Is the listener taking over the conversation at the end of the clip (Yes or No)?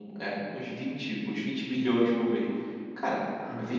No